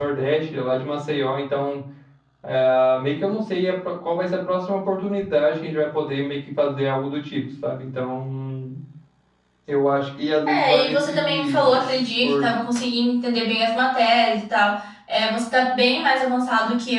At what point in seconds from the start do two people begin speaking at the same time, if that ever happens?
10 s

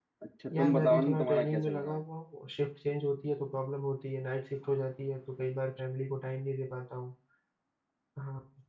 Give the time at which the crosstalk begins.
1 s

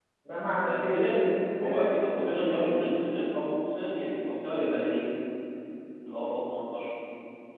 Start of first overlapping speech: 1 s

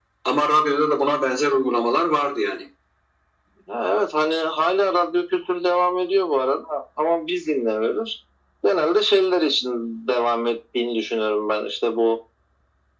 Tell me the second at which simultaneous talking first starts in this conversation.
none

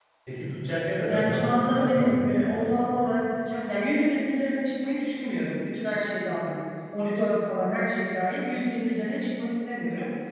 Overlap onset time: 1 s

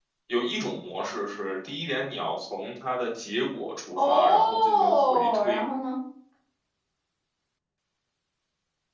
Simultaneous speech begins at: 4 s

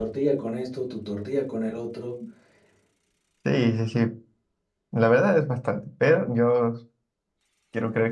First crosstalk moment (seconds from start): none

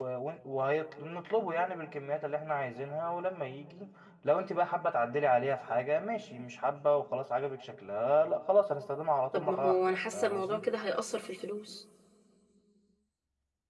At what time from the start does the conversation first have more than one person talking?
9 s

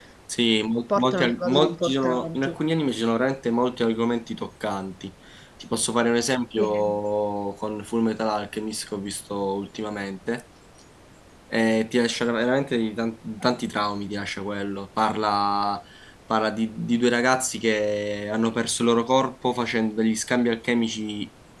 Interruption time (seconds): 1 s

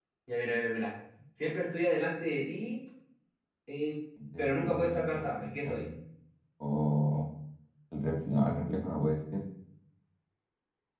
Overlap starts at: 4 s

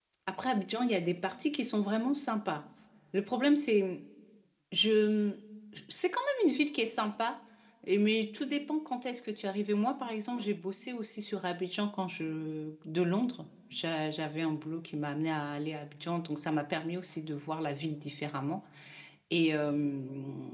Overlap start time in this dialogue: none

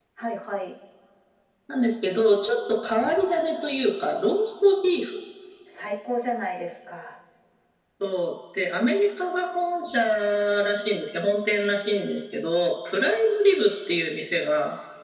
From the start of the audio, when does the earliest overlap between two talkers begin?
none

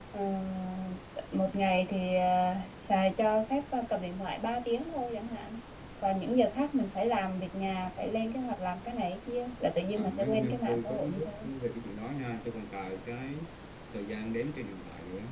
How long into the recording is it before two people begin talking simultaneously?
10 s

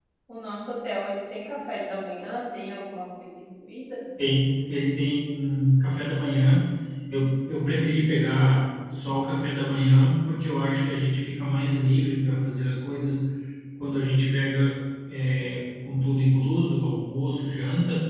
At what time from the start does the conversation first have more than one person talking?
none

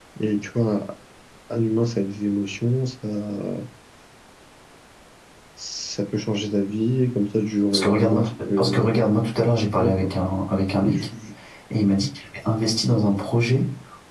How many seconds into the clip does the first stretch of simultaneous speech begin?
8 s

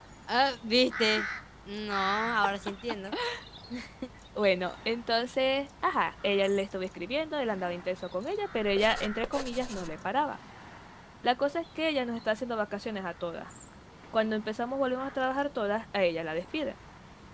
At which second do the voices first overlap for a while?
none

